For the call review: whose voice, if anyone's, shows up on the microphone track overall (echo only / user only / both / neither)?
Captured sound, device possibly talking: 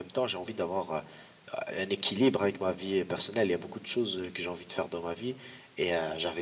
echo only